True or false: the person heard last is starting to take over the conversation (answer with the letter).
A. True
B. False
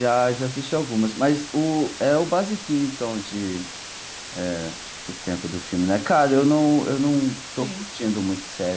B